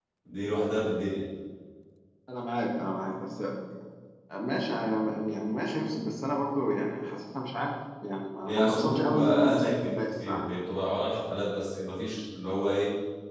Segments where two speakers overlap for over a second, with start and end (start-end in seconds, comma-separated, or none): 8.5-10.4